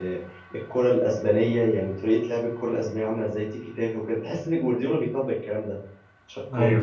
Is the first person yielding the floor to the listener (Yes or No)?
No